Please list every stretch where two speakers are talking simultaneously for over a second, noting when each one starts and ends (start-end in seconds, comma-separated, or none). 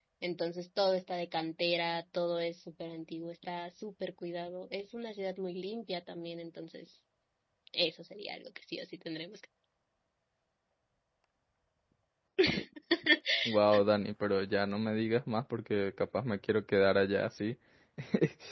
none